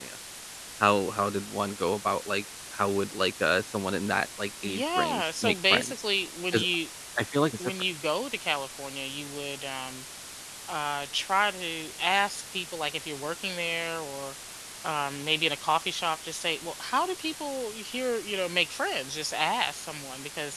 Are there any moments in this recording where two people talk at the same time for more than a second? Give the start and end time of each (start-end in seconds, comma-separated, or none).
4.6-5.9